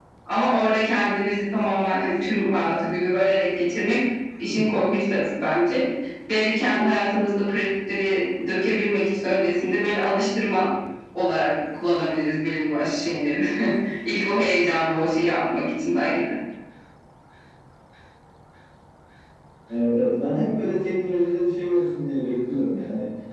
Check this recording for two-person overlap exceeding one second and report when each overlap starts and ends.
none

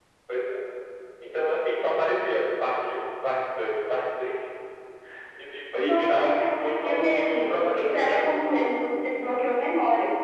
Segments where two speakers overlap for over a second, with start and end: 5.7-8.6

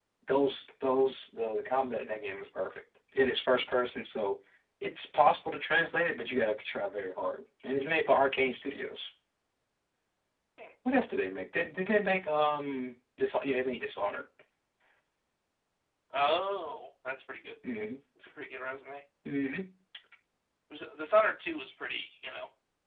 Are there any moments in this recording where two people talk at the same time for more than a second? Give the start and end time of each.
none

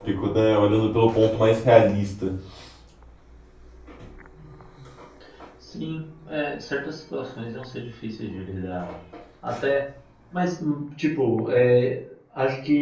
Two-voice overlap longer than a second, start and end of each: none

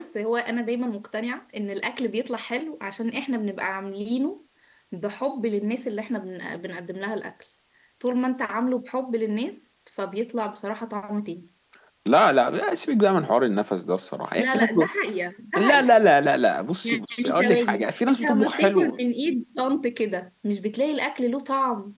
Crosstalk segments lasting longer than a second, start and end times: 16.8-19.0

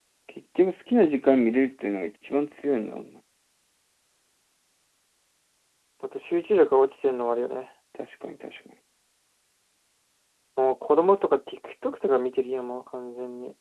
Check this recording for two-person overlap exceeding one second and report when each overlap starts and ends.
none

